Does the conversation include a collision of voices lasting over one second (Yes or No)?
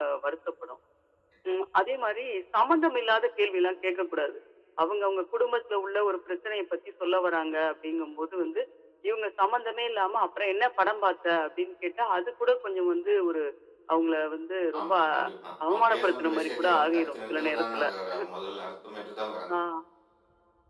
Yes